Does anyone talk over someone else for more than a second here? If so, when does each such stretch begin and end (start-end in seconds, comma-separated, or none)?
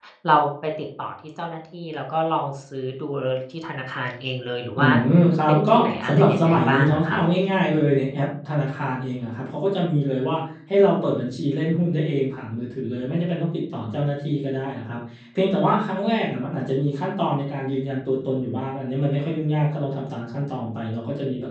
5.5-7.2